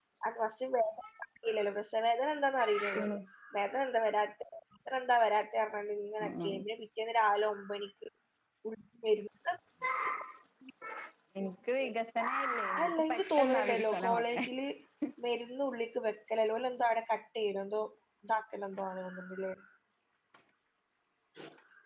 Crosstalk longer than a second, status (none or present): present